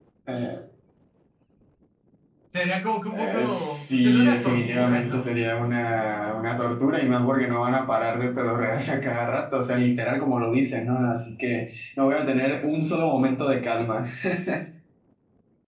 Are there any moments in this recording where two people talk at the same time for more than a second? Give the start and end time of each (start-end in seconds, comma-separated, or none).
3.1-5.2